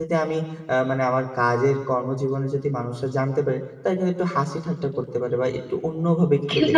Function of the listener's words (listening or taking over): taking over